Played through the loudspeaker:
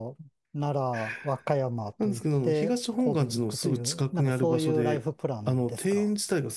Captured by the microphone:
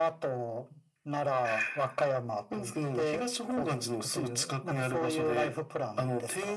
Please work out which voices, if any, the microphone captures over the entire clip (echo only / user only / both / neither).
echo only